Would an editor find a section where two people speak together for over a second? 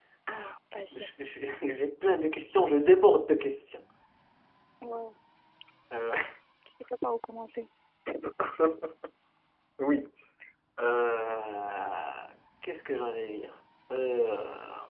No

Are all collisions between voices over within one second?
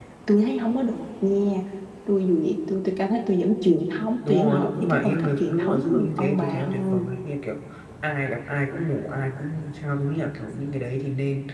No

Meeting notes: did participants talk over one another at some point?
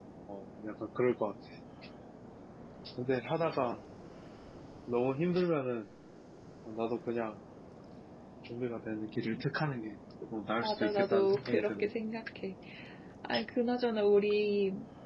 Yes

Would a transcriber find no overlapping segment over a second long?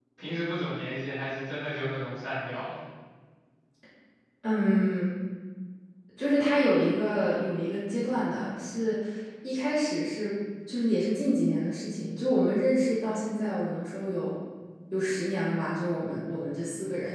Yes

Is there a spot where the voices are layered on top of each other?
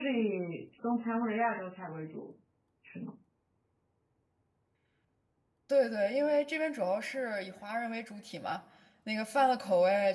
No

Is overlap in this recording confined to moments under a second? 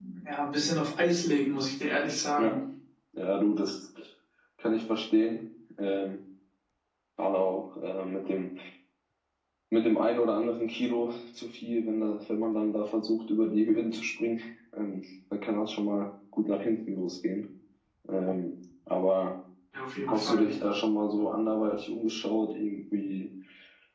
Yes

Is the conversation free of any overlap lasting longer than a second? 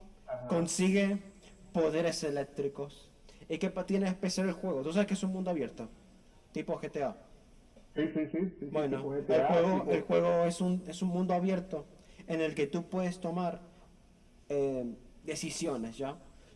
No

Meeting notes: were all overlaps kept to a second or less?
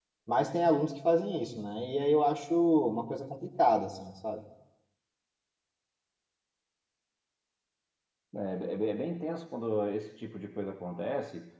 Yes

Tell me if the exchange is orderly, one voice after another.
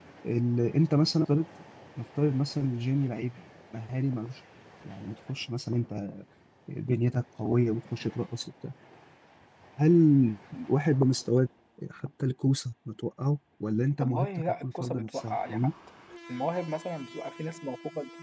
No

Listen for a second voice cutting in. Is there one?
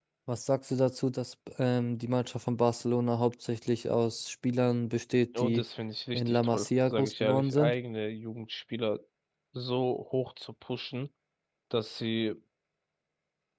Yes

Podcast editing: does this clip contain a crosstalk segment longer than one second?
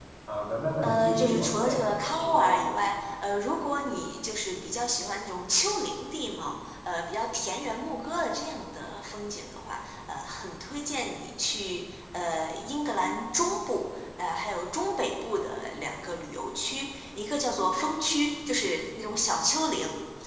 Yes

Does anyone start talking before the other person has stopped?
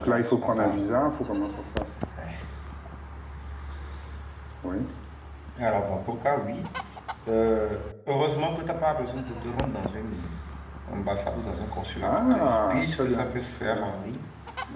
Yes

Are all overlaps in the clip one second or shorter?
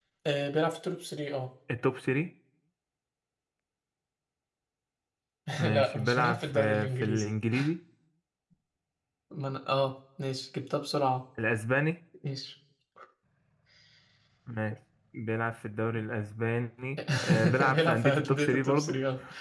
No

